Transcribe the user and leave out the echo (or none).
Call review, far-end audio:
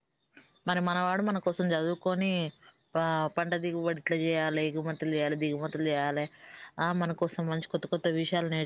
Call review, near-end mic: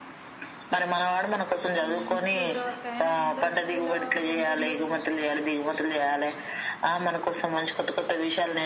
మ్మ్ కుదరవక్క అయినా ఇంత సిటీలో సొంతిడ్లు